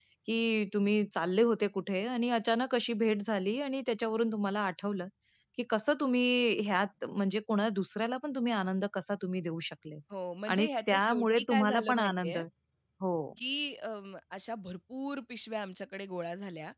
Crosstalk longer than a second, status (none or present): present